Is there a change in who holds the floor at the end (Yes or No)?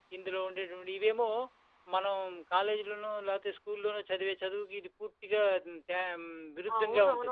Yes